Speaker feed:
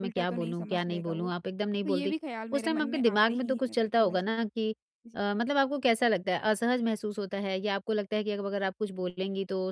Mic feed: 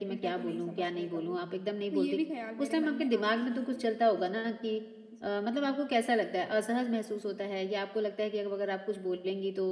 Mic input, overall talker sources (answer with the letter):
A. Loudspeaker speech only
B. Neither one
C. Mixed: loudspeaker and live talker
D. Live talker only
A